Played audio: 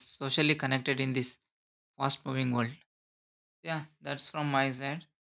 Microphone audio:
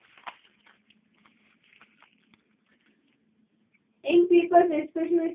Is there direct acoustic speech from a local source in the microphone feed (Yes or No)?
Yes